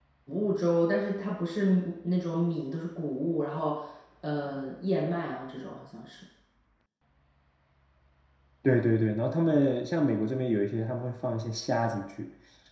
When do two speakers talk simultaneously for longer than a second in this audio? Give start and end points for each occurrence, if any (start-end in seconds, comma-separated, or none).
none